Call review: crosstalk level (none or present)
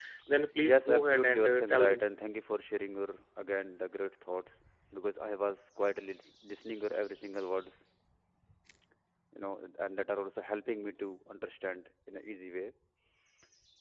present